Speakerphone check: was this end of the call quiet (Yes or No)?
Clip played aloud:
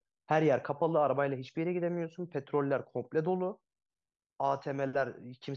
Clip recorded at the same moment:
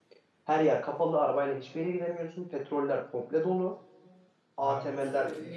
No